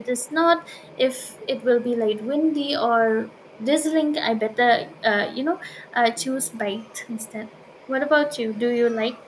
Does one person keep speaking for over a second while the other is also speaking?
No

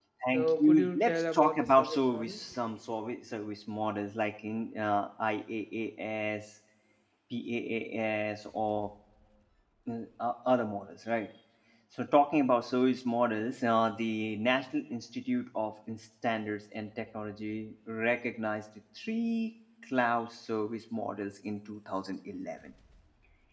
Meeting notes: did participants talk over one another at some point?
Yes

